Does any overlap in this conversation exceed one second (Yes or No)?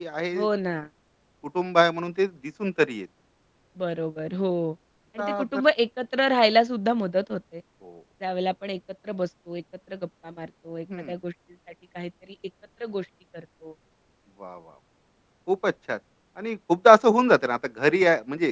No